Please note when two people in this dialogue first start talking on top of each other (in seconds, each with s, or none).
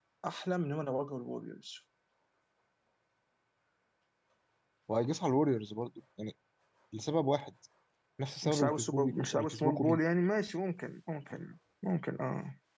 8.4 s